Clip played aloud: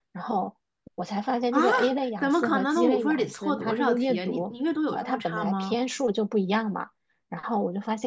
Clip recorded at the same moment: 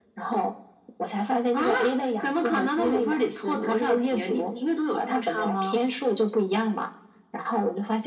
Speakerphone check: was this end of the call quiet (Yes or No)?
Yes